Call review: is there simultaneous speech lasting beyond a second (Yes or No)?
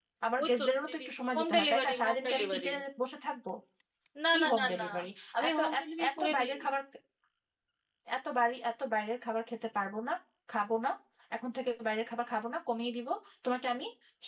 Yes